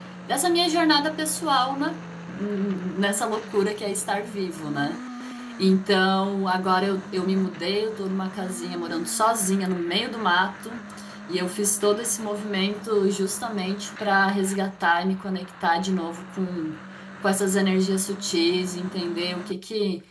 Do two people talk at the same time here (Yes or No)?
No